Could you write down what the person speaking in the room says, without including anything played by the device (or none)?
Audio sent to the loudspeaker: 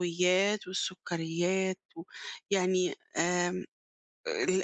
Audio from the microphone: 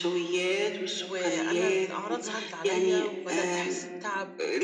وأنا الأعراض ظهرِت عليَّ، وبدأت أحس بتعَب